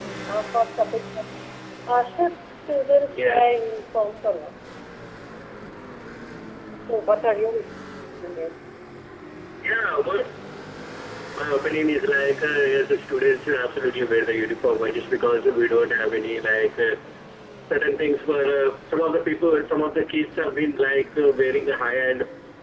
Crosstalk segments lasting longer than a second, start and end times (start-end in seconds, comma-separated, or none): none